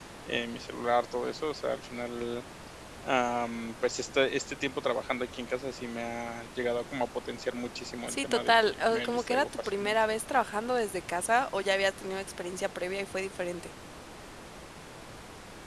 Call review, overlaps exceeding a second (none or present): present